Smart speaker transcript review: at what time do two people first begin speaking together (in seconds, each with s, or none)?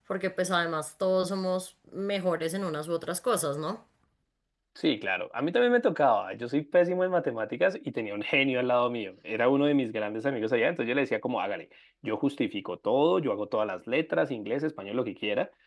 none